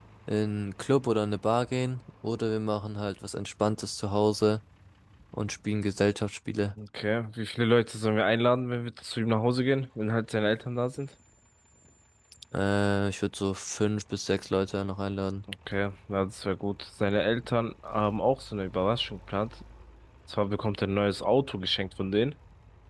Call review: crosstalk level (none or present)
none